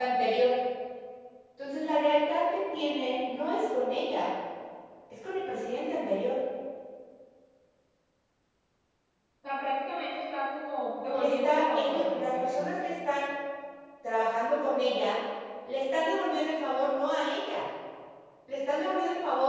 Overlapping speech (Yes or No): Yes